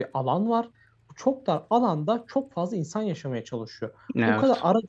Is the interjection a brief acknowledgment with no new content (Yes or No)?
Yes